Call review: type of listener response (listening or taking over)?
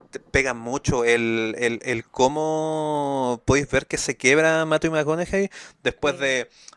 listening